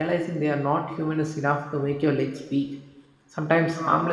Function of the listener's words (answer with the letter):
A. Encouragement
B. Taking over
A